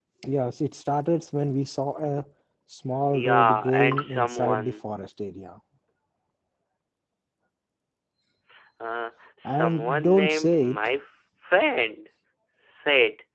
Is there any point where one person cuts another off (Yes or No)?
Yes